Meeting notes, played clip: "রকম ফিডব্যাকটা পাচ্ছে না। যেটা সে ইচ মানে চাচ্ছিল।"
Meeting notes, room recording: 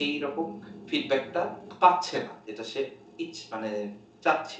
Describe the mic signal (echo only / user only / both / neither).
echo only